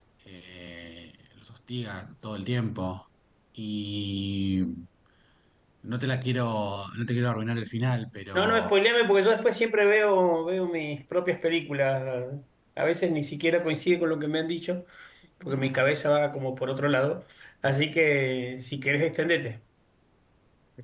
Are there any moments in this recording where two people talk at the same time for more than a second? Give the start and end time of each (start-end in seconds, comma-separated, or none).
none